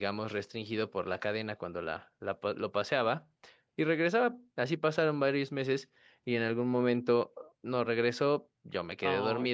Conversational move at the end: listening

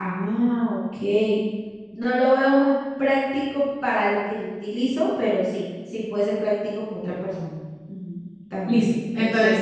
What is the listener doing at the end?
taking over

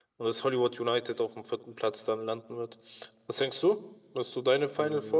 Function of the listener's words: taking over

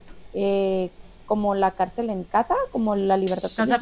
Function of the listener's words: taking over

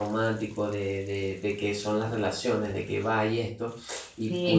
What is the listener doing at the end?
listening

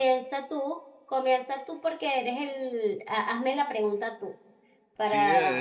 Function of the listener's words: taking over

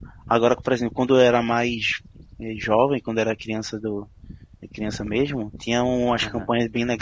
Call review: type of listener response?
listening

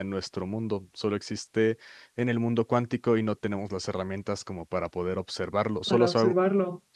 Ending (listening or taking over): listening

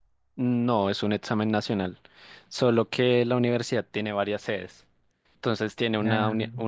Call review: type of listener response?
listening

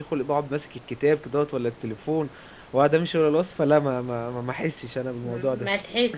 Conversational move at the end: taking over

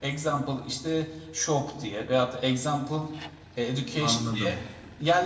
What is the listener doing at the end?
listening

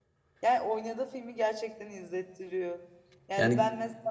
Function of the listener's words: listening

